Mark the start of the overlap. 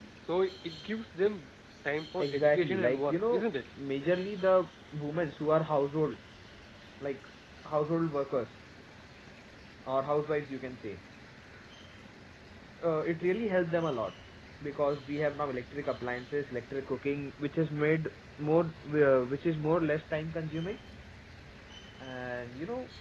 2.2 s

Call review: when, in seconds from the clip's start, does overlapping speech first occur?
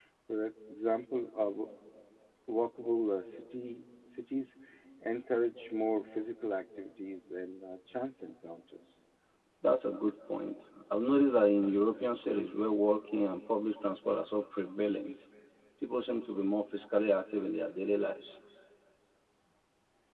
none

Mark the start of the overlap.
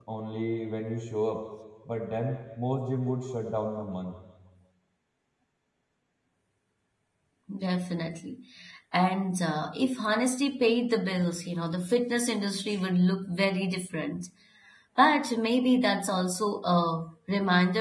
none

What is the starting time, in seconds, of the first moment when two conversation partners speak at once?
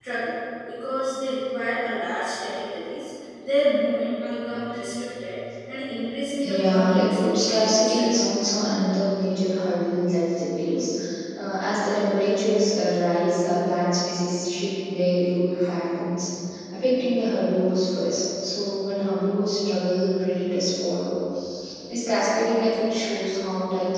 6.4 s

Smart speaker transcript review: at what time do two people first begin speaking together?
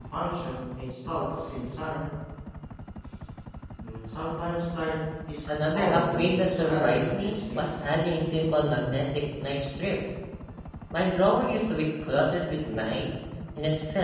5.7 s

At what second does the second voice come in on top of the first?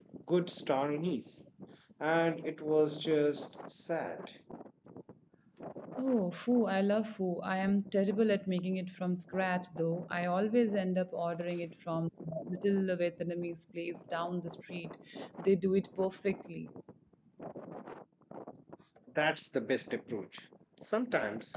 none

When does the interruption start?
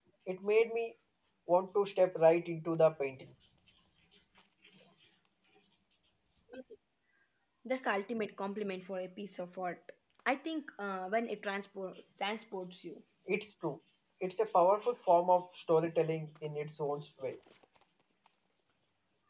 none

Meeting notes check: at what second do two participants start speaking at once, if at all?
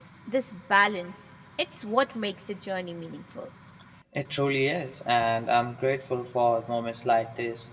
none

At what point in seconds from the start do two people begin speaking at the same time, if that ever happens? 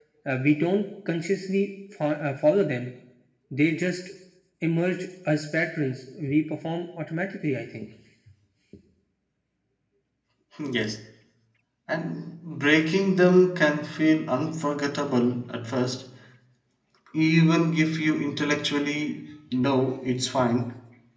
none

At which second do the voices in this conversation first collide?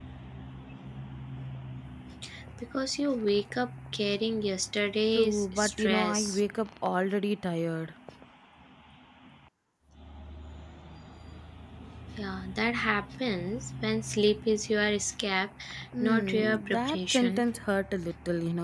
5.2 s

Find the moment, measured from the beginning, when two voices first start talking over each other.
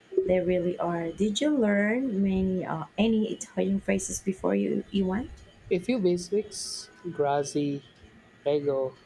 none

